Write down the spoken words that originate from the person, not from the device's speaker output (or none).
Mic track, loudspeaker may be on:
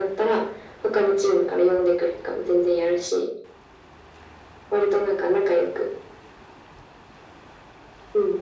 none